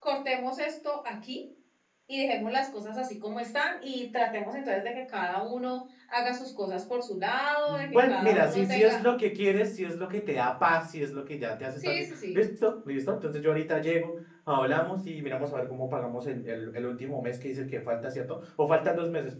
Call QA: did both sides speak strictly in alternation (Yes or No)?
No